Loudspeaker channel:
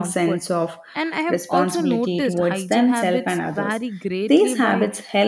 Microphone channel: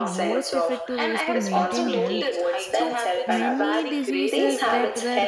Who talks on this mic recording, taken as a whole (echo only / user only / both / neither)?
both